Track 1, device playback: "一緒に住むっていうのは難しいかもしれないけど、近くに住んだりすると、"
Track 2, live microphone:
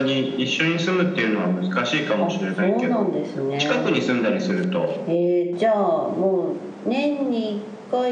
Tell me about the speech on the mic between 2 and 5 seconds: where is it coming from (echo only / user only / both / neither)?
both